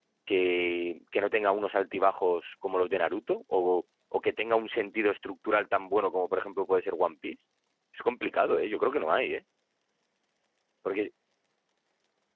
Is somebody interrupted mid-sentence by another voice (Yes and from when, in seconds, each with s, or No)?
No